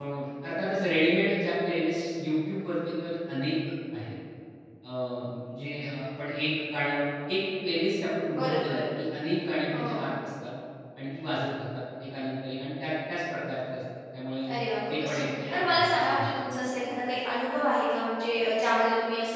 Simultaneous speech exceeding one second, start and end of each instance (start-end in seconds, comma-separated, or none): 14.9-16.5